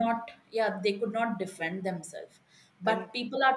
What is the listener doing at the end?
listening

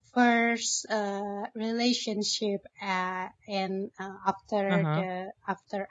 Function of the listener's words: listening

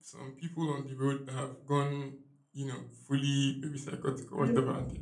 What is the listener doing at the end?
listening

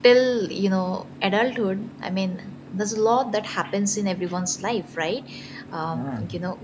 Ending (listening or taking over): listening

